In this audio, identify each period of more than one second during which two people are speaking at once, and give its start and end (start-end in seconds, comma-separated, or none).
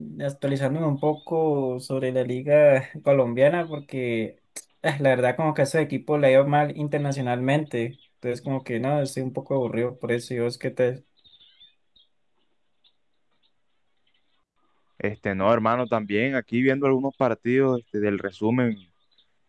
none